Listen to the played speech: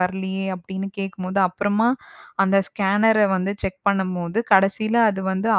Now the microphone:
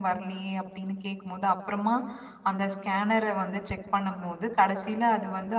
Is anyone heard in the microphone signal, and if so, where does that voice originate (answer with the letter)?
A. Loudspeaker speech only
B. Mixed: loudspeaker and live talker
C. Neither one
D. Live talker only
A